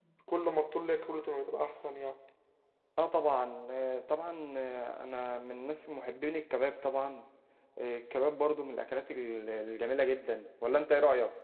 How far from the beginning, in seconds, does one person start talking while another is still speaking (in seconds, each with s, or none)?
none